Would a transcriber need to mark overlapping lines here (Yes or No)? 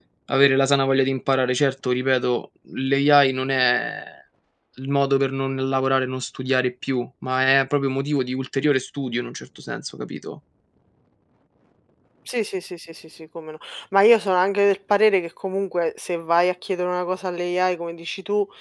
No